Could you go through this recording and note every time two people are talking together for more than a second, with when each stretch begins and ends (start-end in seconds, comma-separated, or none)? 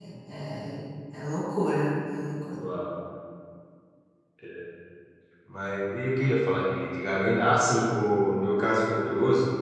none